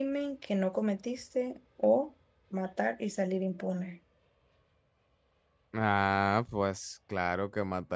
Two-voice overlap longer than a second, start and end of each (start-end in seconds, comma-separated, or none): none